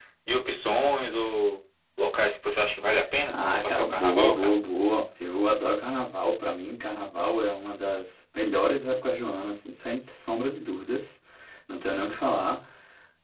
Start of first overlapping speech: 3.3 s

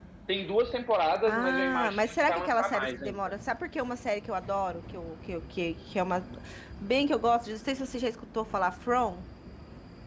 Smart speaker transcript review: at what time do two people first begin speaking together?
1.2 s

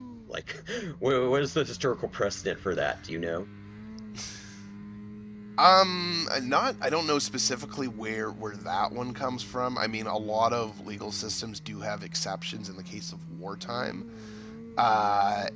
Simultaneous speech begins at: none

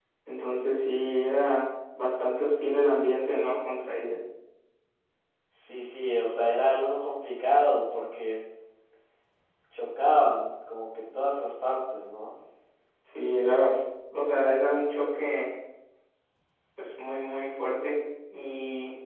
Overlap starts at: none

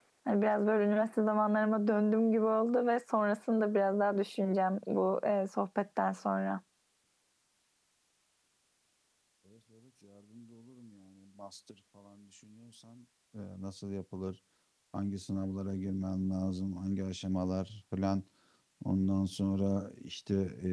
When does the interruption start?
none

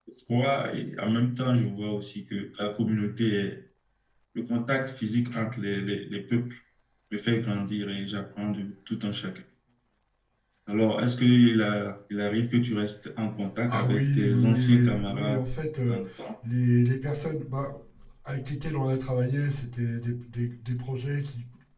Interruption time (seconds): 13.7 s

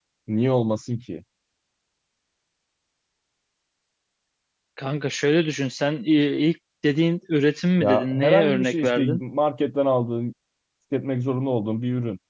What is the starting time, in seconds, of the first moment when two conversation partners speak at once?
7.8 s

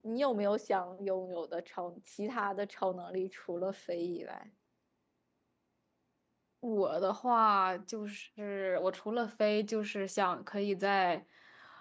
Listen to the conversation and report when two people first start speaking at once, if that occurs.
none

